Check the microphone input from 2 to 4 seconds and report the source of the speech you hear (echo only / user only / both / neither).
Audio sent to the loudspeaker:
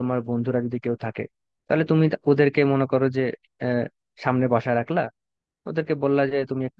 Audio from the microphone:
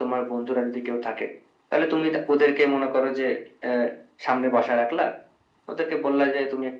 echo only